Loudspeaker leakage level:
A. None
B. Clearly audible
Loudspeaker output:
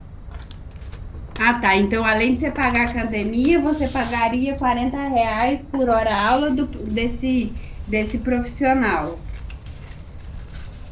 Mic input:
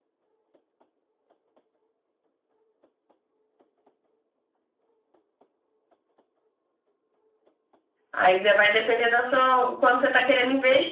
A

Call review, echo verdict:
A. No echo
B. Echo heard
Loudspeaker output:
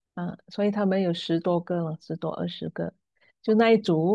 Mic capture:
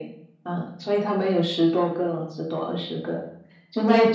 B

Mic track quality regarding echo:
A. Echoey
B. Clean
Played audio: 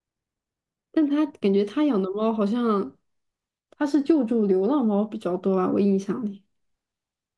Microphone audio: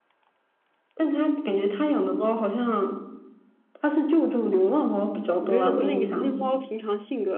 A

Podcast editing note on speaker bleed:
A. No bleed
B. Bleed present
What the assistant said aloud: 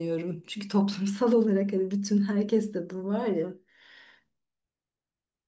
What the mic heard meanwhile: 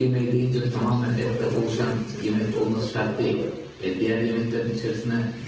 B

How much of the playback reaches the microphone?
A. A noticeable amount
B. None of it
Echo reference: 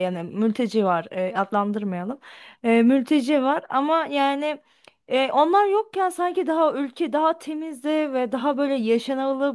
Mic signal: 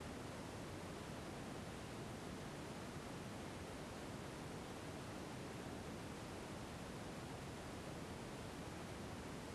B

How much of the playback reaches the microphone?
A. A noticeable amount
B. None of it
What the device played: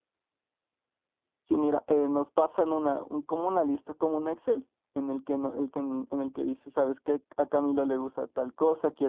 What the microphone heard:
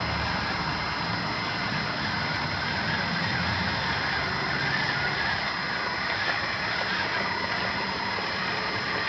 B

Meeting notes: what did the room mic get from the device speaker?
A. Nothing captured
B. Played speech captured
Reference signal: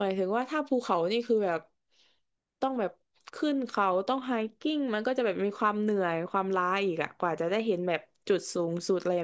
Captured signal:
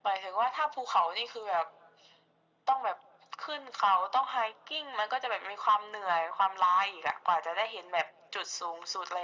B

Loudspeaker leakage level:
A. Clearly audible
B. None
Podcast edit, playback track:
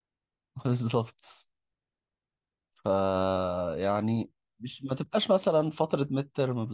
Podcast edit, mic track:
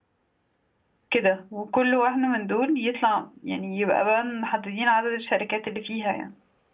B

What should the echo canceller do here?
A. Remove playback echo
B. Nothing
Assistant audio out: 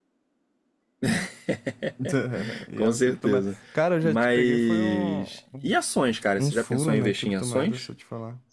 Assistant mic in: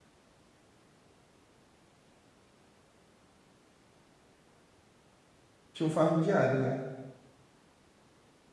B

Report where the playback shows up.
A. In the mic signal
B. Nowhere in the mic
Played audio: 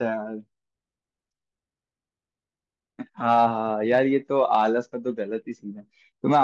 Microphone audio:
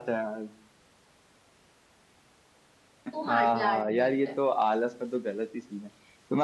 A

